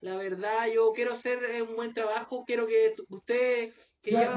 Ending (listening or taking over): taking over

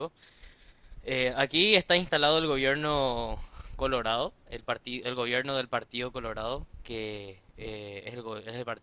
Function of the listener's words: listening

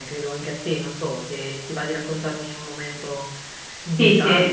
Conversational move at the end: taking over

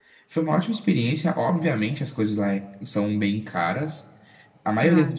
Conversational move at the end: listening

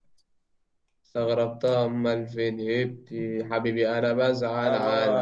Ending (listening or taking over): taking over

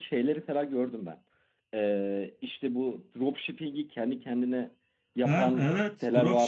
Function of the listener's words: taking over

